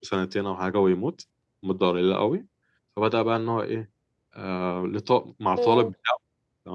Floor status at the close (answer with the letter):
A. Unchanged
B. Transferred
A